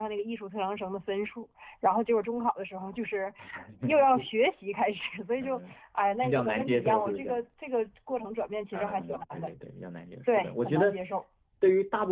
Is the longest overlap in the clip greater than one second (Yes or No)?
Yes